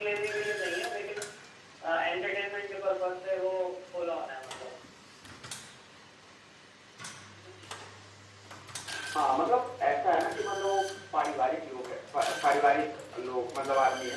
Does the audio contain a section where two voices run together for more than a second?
No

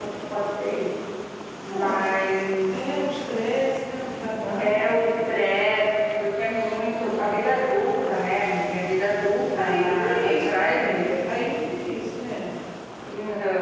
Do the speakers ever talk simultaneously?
Yes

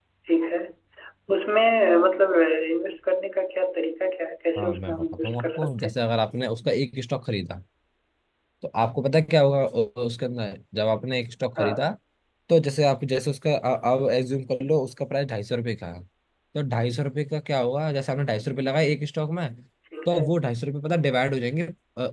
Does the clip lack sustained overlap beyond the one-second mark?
No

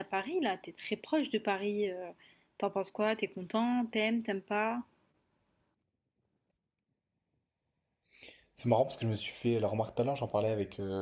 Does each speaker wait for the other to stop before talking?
Yes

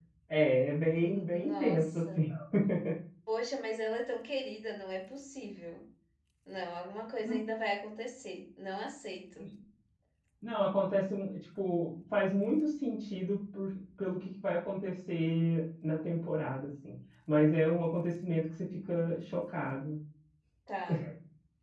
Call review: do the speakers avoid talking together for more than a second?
No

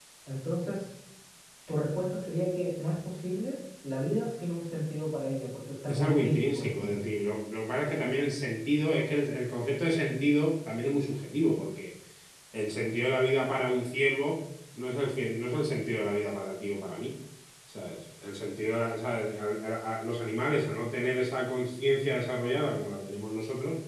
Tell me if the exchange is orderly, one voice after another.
No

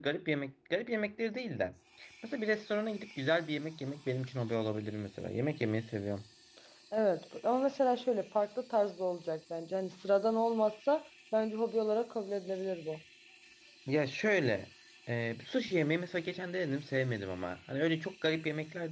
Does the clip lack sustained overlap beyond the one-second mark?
Yes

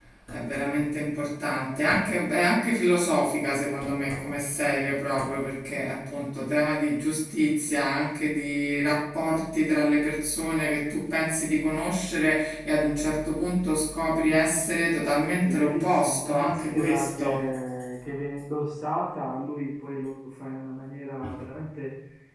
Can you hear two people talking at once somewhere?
Yes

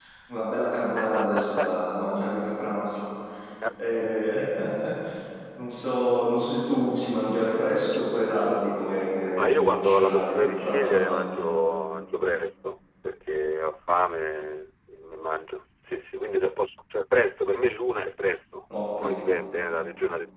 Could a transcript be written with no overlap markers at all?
No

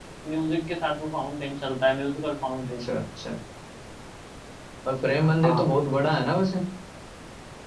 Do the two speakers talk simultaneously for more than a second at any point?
No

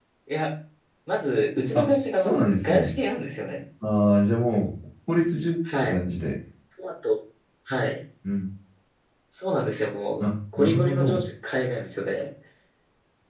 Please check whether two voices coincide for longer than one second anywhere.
Yes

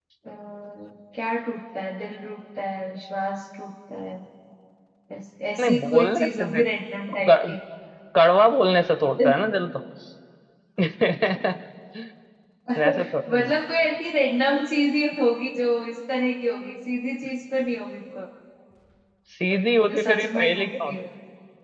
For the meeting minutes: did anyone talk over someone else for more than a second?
Yes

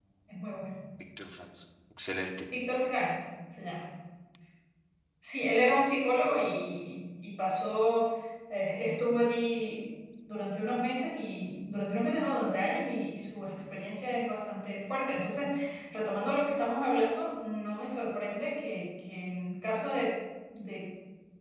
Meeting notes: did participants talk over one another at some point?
No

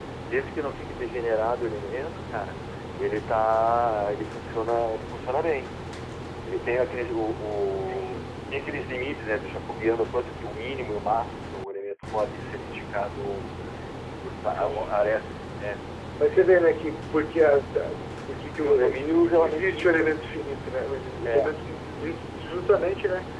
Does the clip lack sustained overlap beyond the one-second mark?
No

